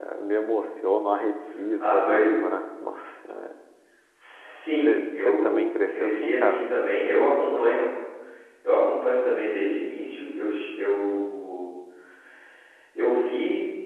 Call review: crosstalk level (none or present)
present